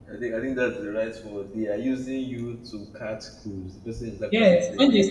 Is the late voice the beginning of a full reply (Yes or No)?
Yes